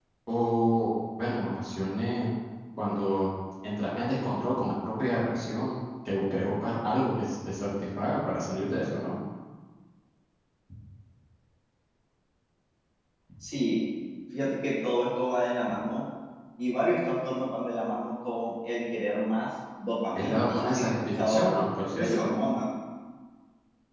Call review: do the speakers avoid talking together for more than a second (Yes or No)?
No